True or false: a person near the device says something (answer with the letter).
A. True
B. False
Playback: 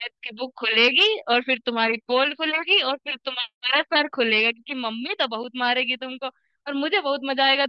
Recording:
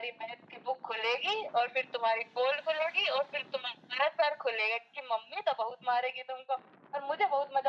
B